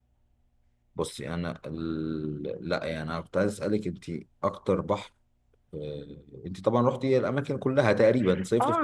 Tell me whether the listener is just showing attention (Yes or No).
No